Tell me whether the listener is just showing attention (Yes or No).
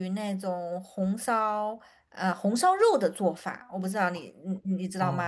No